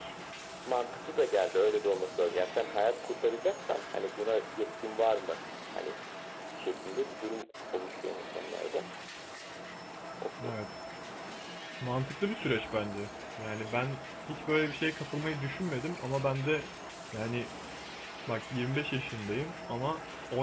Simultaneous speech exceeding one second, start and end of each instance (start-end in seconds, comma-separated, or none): none